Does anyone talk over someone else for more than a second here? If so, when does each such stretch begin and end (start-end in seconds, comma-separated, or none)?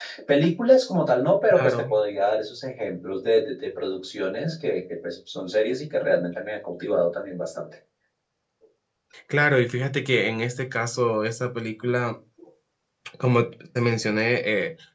none